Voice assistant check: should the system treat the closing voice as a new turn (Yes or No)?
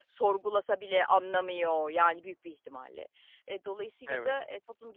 No